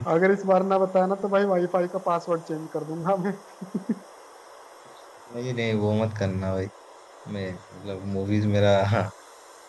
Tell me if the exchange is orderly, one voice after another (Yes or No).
Yes